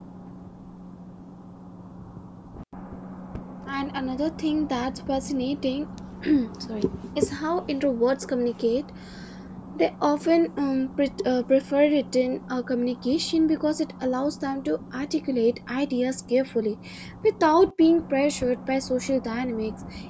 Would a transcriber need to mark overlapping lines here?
No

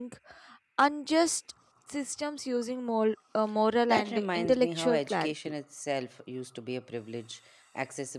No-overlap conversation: No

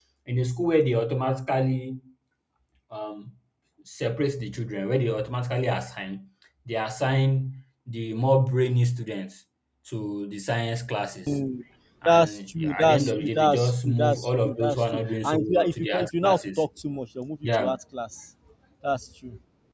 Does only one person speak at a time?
No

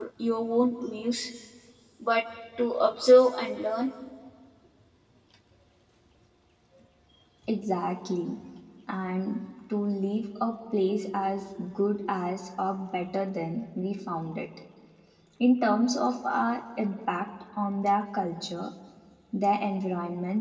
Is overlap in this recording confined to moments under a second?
Yes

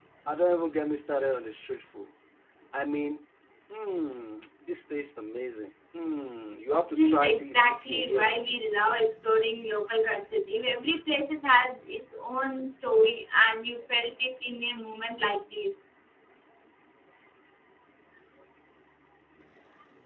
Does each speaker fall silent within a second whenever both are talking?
No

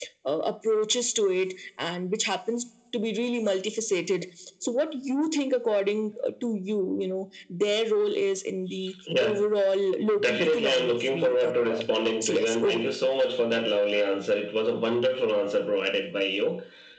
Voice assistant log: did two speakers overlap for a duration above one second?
Yes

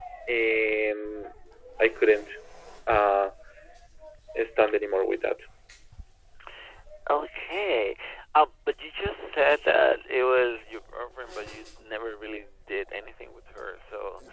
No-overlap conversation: Yes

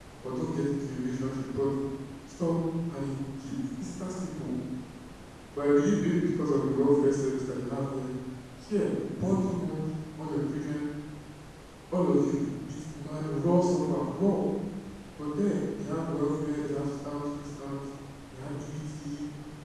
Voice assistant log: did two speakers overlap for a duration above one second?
No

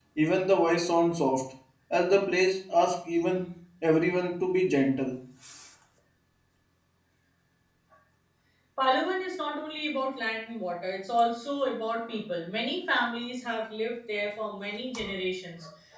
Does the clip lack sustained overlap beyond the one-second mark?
Yes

